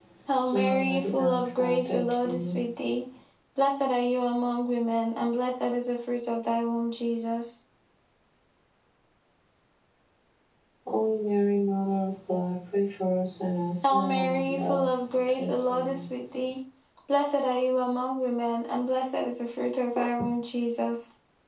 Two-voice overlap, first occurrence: 1 s

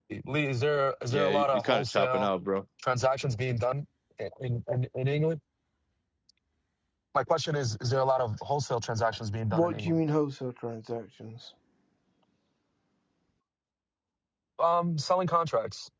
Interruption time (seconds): 1 s

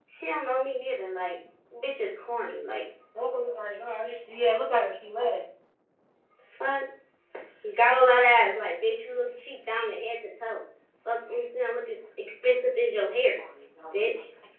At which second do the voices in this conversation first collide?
none

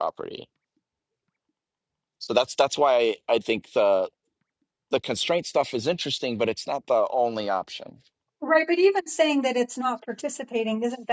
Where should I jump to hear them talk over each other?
none

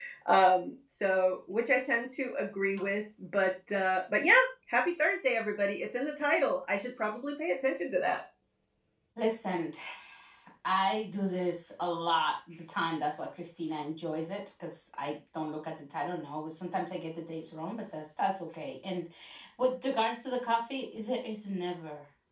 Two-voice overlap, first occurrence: none

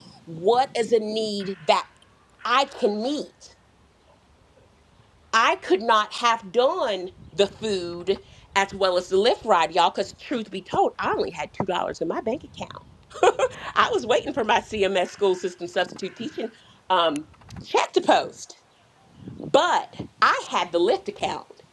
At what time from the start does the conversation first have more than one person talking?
none

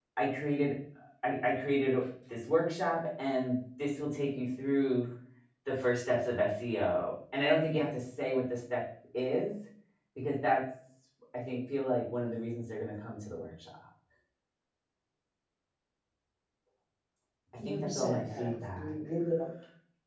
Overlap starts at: 18 s

